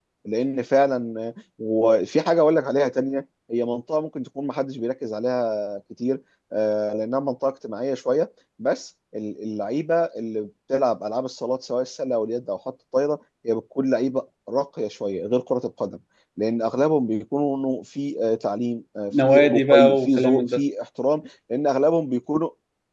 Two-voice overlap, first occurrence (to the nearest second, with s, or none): 19 s